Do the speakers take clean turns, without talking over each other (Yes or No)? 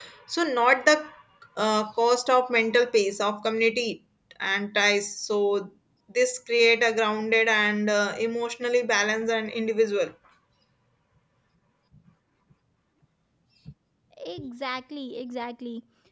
Yes